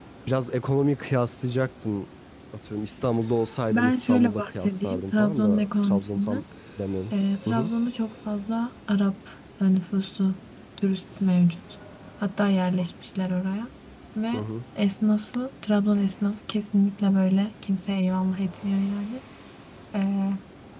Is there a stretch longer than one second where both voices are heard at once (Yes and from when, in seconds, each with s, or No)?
Yes, from 3.7 s